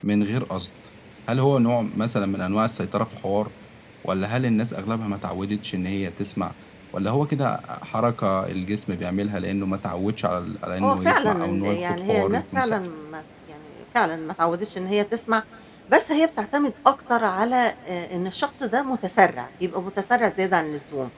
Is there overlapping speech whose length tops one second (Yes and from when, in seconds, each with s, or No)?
Yes, from 10.8 s